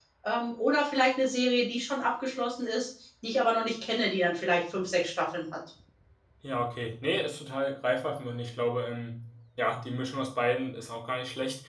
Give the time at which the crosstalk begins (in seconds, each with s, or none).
none